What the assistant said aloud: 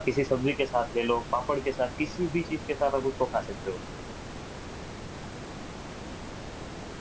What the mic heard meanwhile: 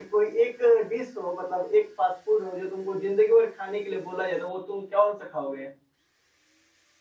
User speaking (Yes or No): Yes